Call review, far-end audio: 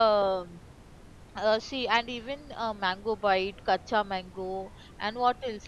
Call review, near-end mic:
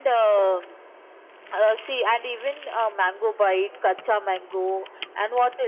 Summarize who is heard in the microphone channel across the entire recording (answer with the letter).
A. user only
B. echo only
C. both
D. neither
B